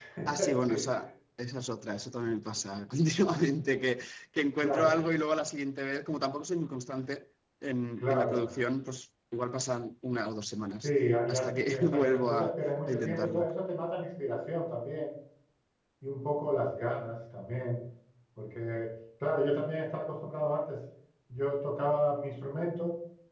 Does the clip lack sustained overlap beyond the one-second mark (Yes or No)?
No